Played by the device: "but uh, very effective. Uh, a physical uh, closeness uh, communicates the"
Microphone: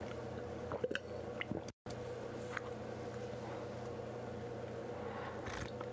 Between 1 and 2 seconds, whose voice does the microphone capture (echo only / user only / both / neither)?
neither